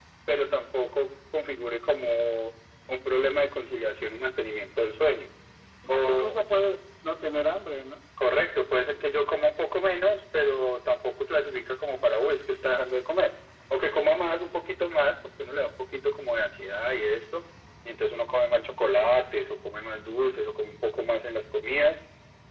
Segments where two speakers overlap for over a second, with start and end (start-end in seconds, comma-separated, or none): none